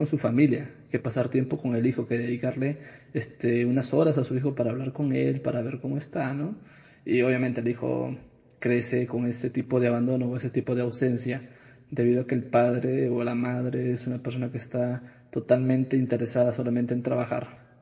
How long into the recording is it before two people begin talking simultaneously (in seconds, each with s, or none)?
none